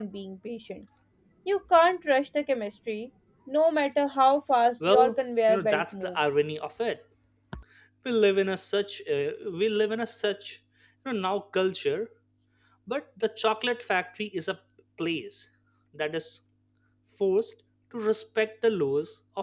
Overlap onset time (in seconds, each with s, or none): 4.8 s